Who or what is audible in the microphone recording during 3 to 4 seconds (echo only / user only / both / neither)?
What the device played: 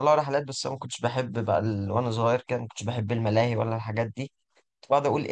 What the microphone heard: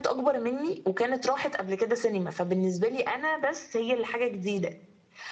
user only